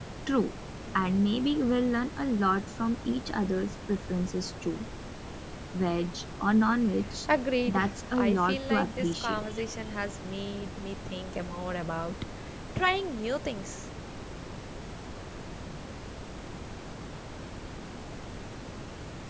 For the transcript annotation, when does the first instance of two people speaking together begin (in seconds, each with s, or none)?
7.7 s